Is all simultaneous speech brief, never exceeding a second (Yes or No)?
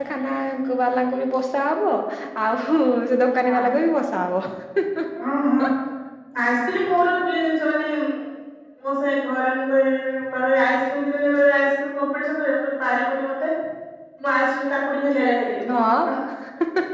Yes